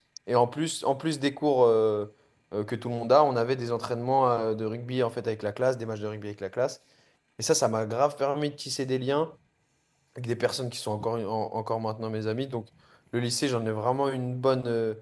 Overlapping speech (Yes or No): No